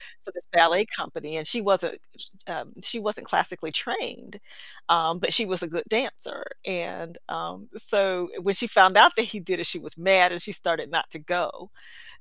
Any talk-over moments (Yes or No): No